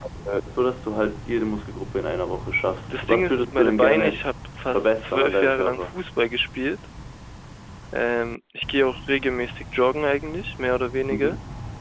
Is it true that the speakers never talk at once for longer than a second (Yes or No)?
No